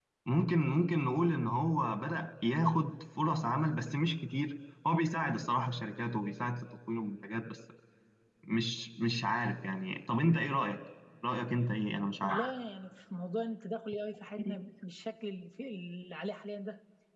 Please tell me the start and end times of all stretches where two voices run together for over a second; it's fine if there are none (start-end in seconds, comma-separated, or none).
none